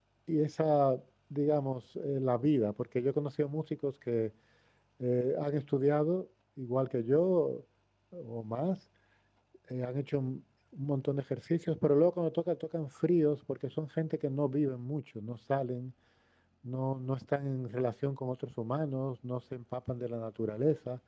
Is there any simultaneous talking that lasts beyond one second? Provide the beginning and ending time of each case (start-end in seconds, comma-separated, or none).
none